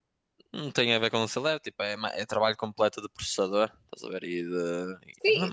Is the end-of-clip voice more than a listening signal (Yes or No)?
Yes